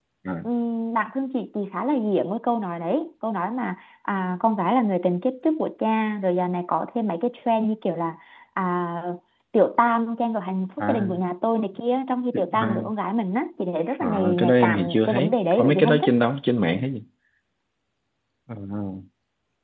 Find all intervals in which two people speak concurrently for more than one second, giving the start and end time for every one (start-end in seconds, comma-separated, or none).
14.0-16.1